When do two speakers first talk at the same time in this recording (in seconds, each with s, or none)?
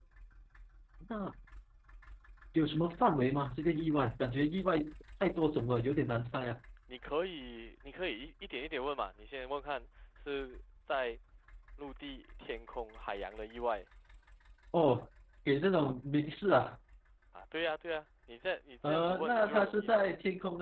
18.8 s